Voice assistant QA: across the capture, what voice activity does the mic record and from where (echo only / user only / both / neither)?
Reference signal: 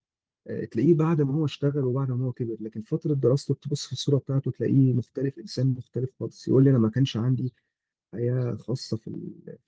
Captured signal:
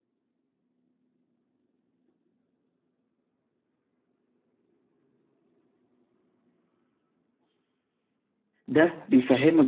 user only